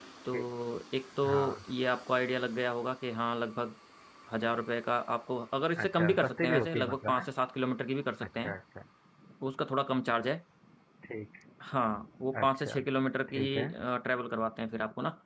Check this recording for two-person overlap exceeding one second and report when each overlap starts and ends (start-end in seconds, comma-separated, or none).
5.8-7.2